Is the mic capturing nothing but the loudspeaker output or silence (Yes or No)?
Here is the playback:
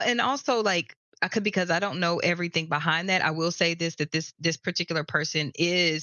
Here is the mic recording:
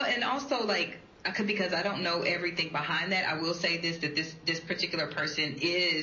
Yes